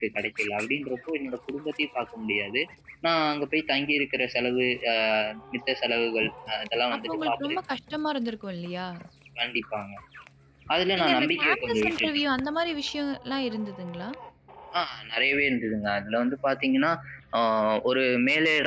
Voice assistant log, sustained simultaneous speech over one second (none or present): present